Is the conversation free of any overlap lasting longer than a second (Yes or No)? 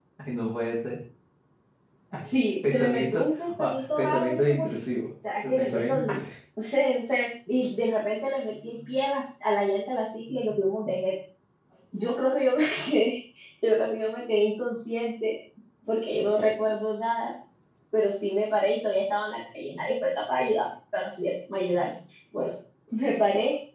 No